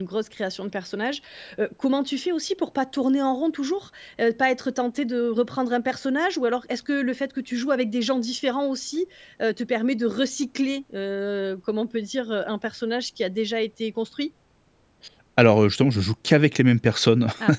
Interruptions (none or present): none